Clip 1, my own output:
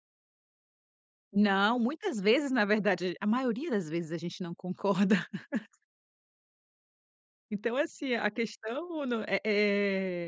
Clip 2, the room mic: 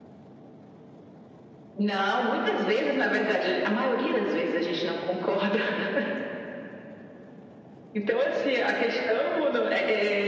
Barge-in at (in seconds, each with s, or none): none